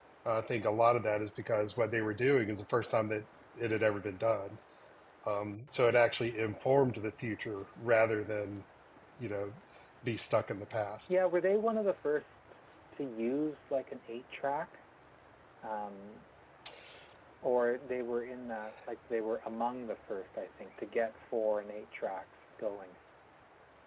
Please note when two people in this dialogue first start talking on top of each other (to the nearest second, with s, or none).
none